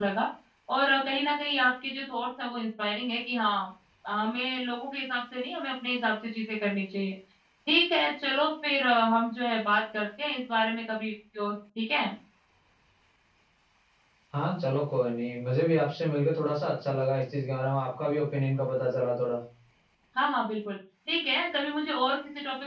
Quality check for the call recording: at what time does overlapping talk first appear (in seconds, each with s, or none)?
none